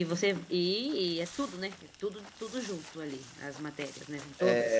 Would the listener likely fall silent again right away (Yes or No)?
No